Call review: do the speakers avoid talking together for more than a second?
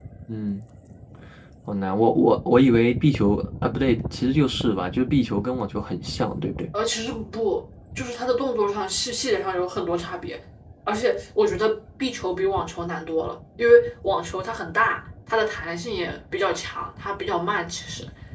Yes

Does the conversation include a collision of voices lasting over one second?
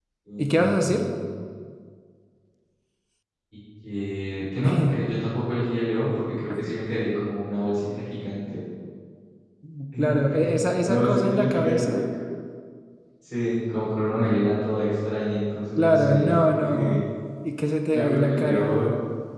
Yes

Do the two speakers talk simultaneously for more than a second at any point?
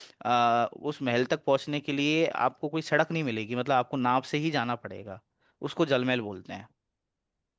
No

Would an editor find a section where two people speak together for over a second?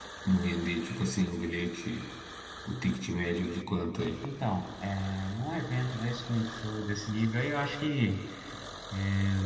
No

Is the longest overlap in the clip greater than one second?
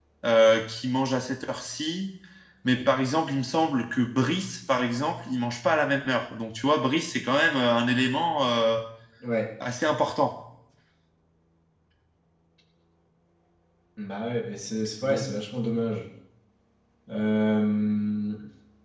No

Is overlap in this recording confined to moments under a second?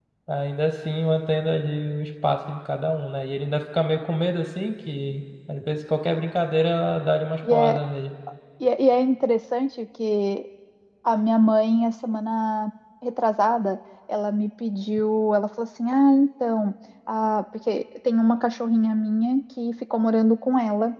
Yes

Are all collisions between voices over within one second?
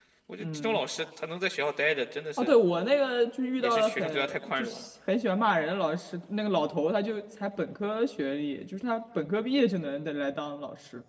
No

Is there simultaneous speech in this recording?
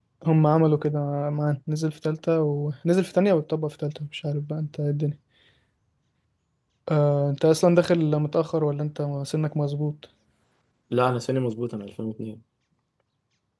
No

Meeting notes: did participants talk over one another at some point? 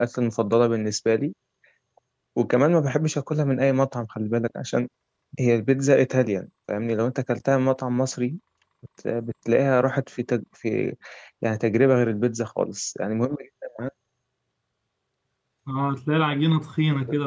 No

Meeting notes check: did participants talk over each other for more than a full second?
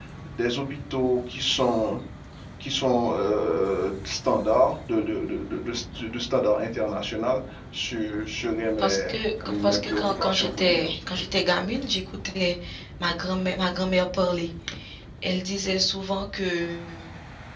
Yes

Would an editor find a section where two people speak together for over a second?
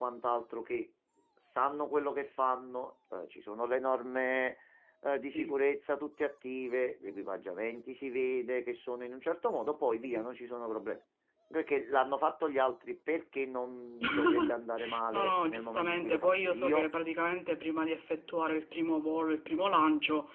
Yes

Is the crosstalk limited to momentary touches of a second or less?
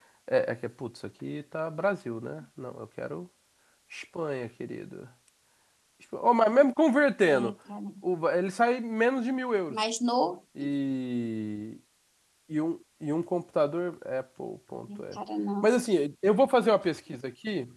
Yes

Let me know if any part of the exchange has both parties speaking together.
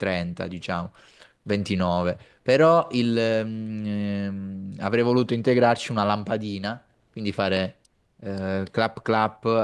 No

